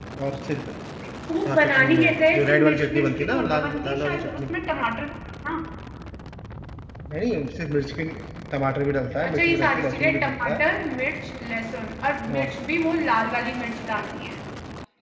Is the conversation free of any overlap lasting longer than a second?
No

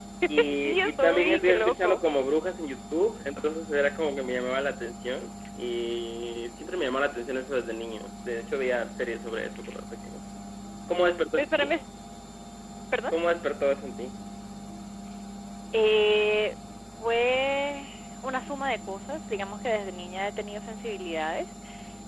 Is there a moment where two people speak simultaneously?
Yes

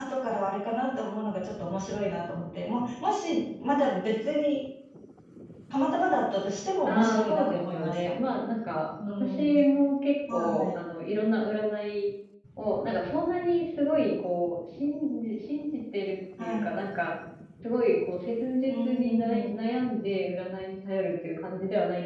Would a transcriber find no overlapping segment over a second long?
No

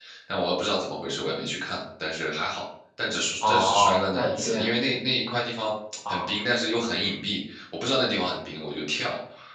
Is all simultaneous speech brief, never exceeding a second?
No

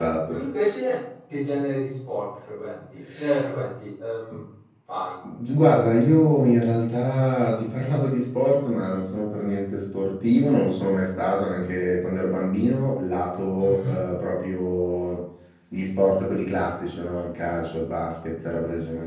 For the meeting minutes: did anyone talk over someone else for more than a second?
No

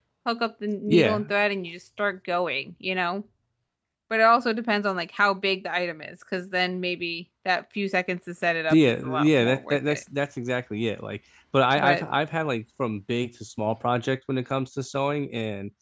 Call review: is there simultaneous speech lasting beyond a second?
Yes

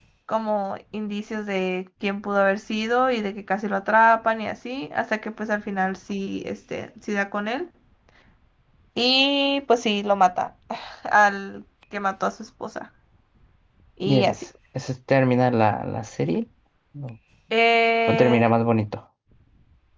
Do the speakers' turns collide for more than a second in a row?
No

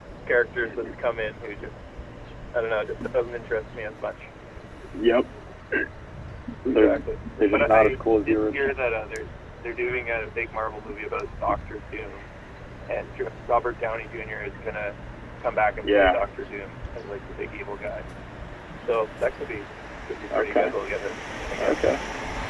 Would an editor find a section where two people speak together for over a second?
Yes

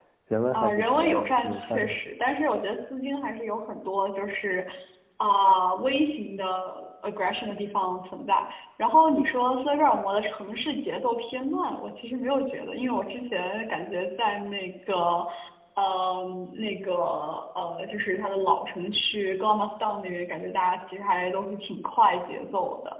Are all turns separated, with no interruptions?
No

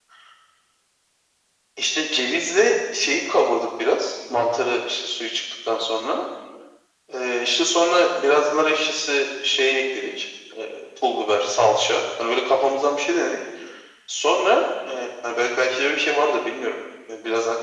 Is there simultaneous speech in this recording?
No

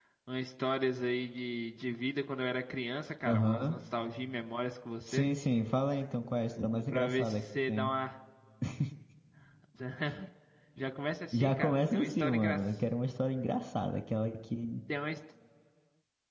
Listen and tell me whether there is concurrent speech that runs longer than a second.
Yes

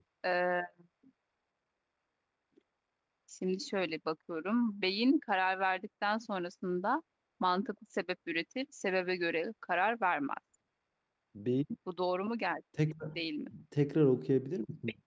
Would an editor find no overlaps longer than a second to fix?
Yes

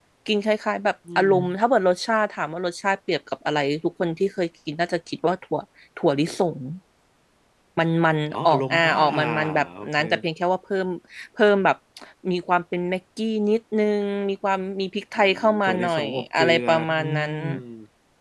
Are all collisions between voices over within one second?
No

